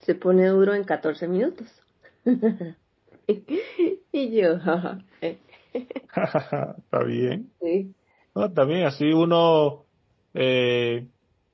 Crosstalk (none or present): none